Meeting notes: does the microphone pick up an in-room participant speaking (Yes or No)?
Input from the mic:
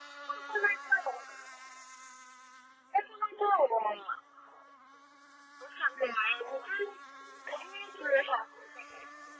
No